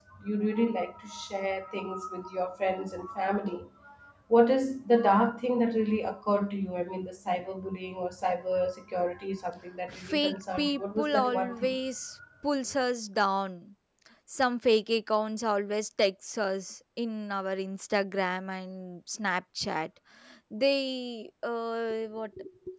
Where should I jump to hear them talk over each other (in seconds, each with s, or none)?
9.9 s